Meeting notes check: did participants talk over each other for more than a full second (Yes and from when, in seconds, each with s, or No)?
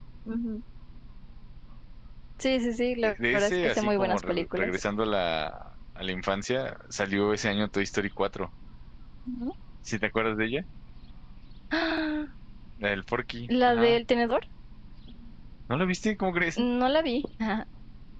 Yes, from 3.0 s